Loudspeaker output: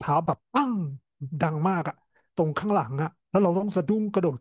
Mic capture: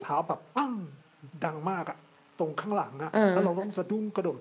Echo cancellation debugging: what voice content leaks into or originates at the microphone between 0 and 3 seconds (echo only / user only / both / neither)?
echo only